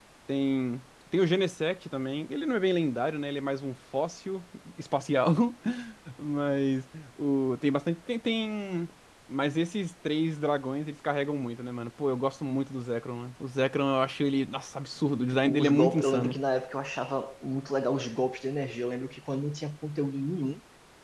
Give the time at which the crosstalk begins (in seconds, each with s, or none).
15.2 s